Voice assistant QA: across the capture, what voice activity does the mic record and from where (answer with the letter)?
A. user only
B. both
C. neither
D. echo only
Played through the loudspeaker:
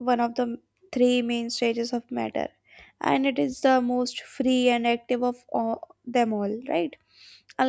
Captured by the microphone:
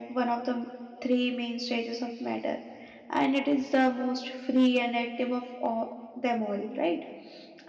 D